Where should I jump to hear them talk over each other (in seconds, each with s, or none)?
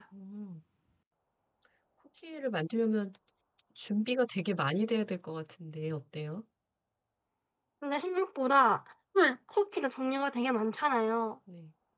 none